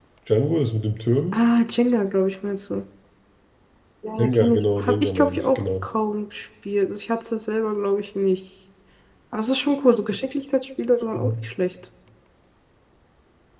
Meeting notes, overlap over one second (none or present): present